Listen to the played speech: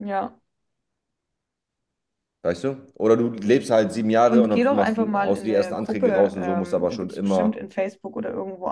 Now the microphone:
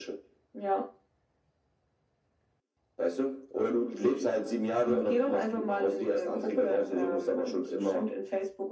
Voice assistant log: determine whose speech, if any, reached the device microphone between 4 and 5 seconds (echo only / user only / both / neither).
echo only